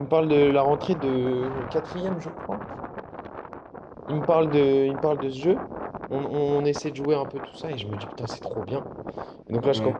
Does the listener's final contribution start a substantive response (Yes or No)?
No